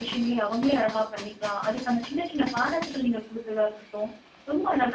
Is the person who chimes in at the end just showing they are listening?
Yes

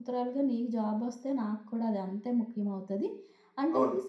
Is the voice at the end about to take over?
No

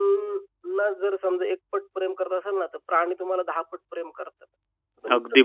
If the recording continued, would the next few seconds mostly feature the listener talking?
Yes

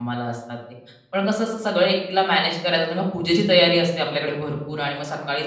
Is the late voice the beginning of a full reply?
No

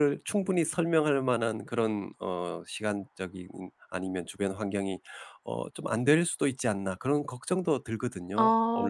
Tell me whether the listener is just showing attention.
No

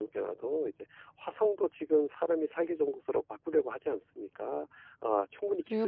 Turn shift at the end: Yes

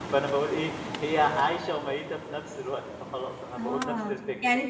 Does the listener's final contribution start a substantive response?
Yes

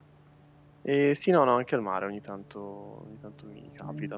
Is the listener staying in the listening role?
Yes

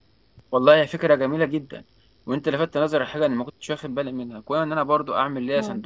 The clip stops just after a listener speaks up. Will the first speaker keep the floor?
Yes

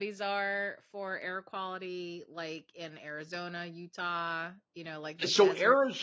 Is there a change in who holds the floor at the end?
Yes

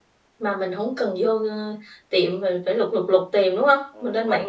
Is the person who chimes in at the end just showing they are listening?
No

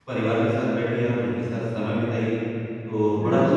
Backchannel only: No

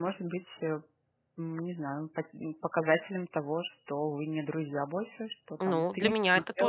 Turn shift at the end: Yes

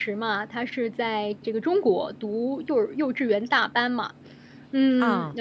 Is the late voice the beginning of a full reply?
No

